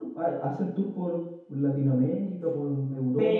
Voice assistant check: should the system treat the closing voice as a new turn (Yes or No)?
Yes